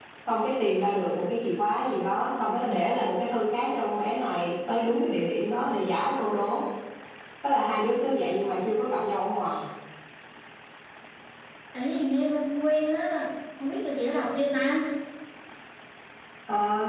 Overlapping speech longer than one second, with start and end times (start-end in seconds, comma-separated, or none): none